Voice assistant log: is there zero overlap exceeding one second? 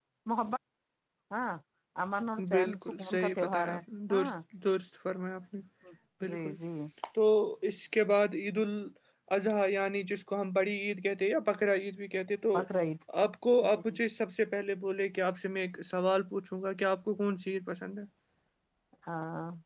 No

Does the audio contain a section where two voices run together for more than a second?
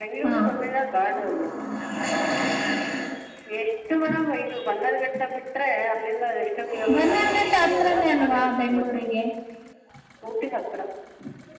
Yes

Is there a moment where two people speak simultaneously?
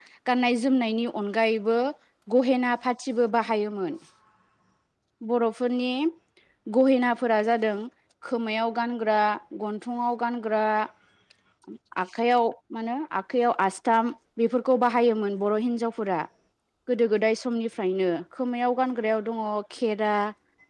No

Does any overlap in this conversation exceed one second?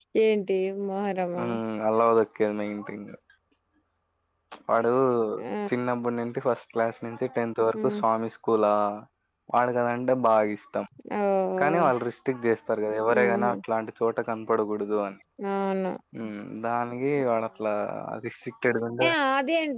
No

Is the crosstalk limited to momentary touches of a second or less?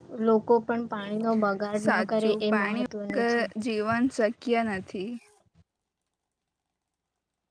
No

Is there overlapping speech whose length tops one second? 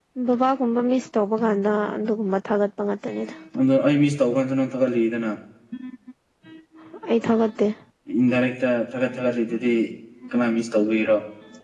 No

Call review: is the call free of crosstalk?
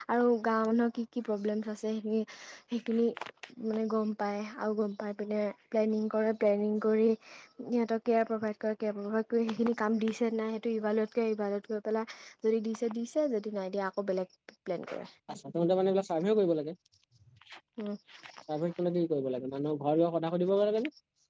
Yes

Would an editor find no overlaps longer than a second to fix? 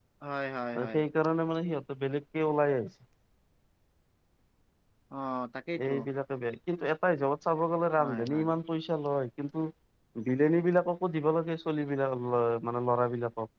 Yes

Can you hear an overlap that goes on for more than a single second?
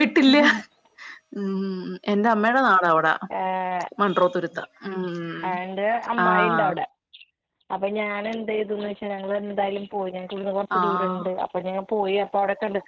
No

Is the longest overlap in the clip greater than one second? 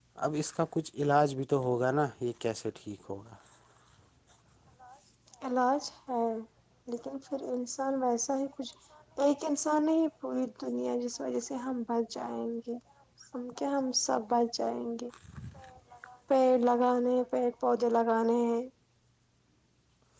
No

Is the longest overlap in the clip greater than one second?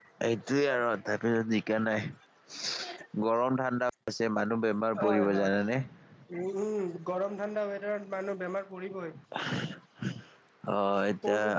No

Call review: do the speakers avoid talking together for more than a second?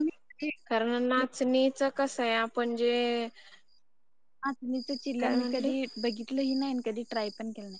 Yes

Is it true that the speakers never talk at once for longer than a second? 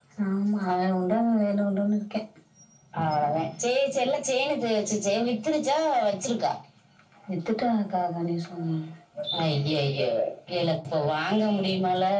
Yes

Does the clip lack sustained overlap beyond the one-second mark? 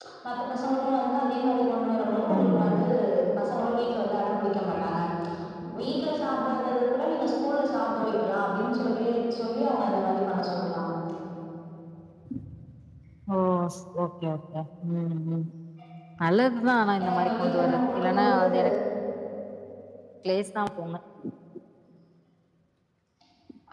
No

